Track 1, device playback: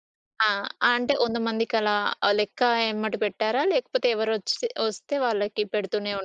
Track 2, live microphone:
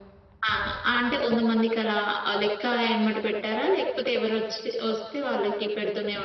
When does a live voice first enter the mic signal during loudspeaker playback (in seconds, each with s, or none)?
none